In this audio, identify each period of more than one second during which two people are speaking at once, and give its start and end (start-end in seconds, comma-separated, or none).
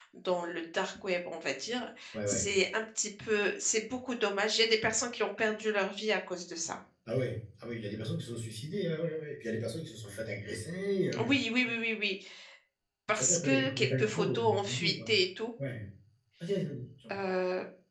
13.2-15.1